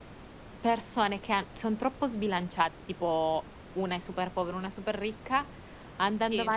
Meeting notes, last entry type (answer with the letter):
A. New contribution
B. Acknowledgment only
B